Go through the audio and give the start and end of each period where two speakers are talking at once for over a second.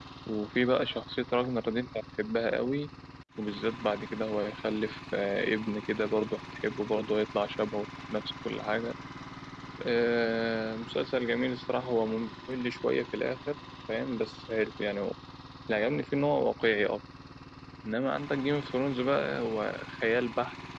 none

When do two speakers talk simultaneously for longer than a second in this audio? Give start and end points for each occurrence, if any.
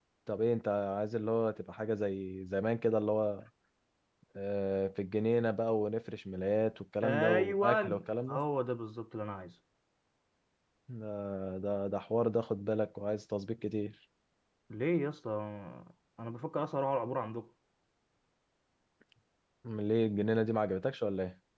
7.0-8.4

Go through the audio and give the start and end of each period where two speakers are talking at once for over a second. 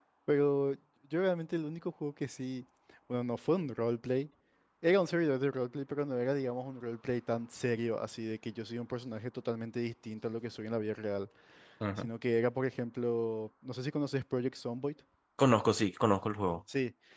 none

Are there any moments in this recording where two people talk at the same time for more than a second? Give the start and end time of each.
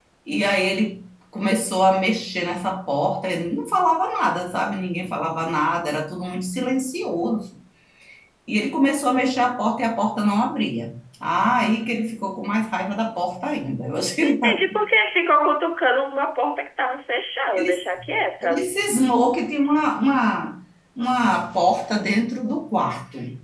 none

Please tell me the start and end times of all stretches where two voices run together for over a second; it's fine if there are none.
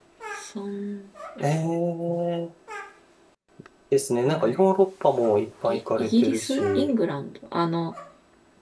5.7-6.9

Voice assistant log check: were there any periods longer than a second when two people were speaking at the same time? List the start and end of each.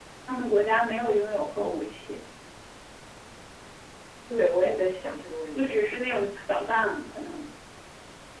none

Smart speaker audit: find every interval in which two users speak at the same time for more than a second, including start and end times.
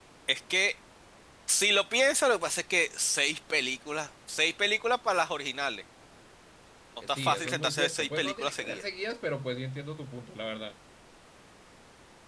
7.1-8.8

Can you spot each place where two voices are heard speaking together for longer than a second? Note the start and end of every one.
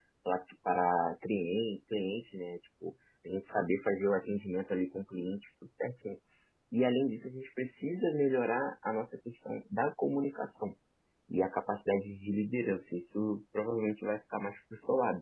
none

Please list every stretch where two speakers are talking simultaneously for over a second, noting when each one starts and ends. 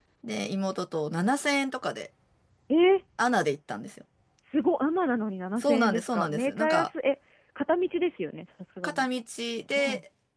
5.6-6.9

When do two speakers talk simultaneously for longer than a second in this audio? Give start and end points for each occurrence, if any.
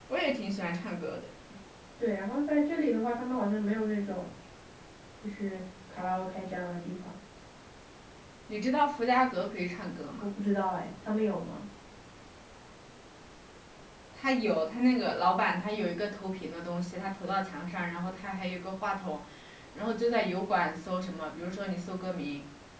none

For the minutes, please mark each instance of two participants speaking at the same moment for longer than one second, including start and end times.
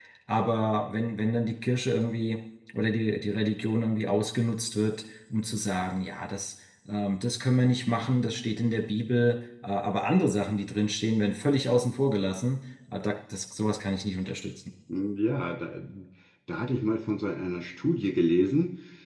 none

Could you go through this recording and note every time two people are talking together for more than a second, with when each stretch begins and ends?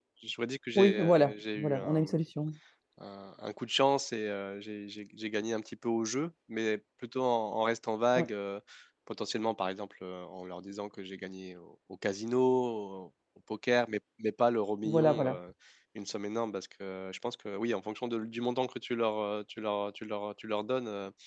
0.8-2.1

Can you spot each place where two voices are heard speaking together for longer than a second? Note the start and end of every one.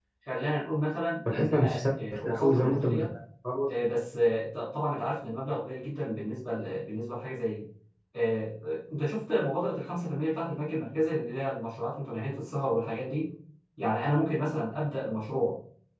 1.3-3.1

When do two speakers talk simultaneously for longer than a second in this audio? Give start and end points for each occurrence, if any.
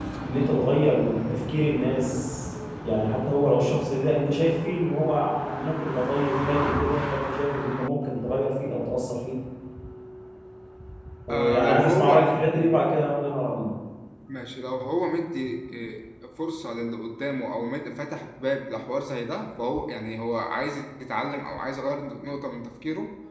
11.3-12.8

